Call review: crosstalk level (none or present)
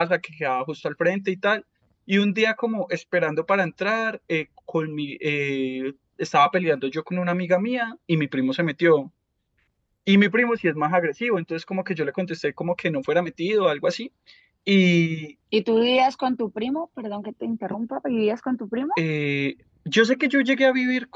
none